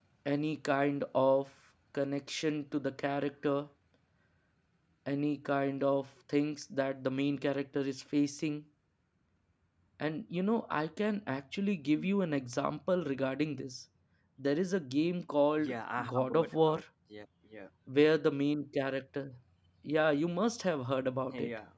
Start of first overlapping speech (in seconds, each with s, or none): 15.6 s